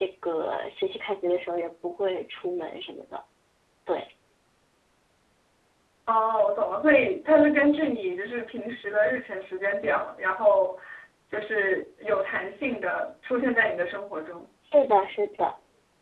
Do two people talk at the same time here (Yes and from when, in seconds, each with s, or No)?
No